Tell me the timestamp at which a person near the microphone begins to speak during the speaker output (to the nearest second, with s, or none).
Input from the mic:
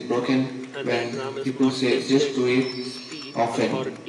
1 s